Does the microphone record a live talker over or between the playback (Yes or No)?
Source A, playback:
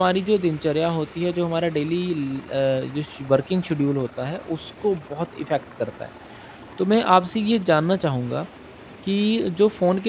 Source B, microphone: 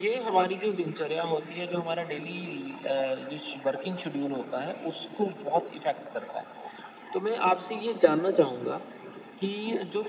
No